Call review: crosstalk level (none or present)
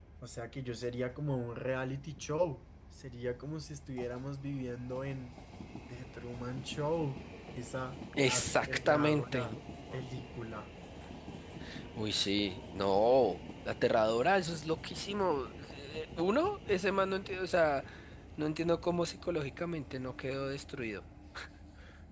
present